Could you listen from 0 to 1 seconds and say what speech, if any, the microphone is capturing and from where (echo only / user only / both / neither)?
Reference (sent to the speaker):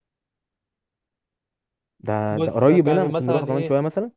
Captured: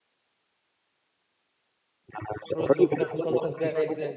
neither